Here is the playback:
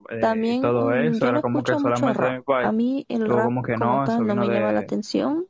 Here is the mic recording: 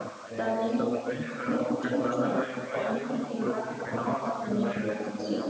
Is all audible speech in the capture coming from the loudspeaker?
No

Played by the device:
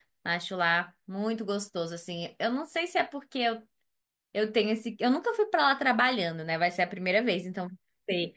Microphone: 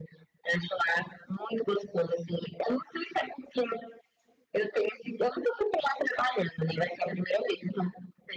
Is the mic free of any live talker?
Yes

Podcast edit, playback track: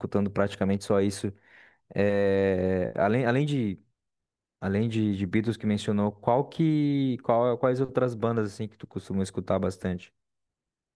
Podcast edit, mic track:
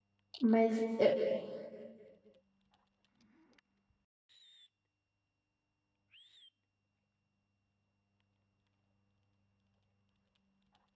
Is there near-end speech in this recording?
Yes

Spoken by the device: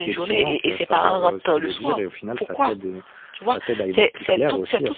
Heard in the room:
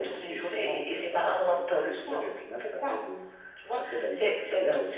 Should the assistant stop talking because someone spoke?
No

